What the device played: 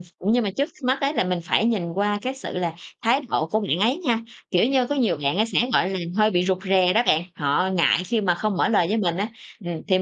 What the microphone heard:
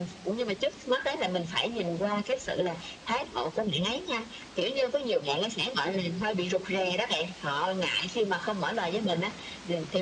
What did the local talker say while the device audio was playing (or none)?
none